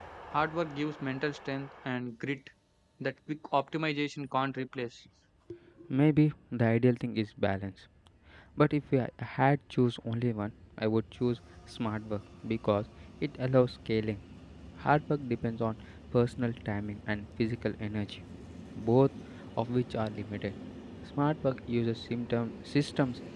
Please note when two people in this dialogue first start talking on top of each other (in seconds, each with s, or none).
none